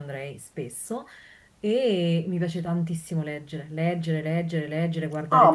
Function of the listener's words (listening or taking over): taking over